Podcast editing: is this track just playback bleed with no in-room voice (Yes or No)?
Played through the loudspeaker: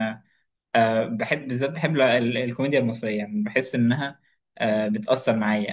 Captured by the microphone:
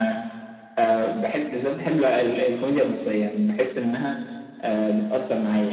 Yes